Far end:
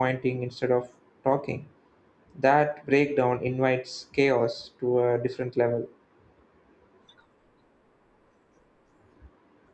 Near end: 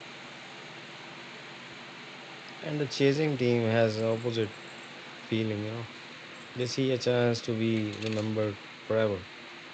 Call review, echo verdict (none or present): none